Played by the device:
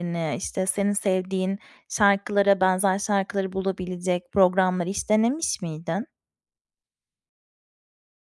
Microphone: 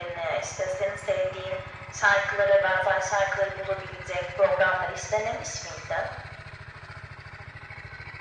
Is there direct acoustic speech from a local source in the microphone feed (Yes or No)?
No